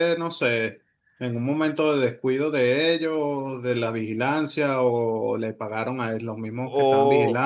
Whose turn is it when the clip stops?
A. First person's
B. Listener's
B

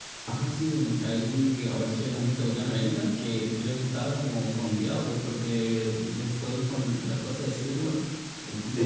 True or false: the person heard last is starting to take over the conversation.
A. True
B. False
B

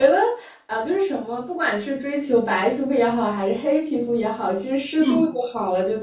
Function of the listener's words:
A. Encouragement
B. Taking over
A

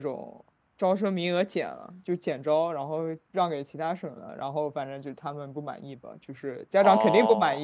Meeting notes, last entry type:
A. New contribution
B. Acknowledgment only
A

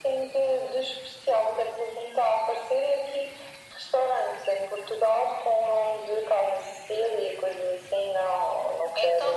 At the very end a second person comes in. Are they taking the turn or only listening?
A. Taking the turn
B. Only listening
A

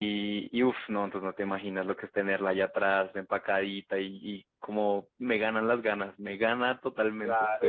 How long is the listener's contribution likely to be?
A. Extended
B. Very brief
A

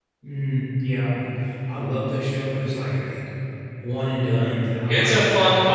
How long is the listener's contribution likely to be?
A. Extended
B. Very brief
A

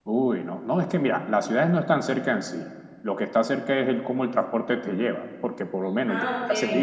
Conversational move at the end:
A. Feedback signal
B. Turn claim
A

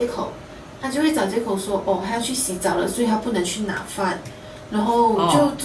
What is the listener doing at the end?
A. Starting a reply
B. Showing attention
B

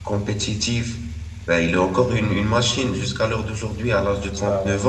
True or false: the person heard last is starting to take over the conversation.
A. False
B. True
A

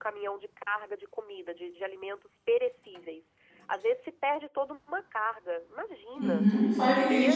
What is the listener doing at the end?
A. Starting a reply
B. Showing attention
A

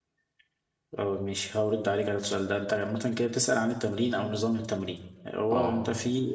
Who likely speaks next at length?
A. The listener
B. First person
B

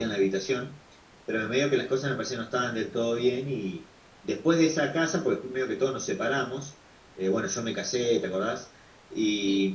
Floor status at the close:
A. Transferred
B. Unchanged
B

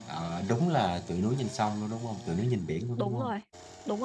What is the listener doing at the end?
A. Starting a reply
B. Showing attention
A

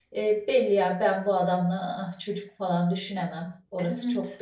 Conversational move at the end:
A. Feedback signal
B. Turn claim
B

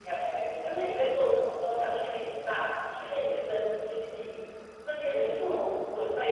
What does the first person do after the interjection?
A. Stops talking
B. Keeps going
B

